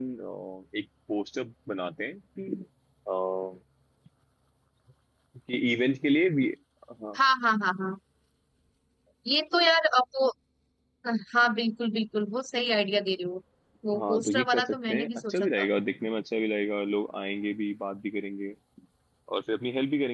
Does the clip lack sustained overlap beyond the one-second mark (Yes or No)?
No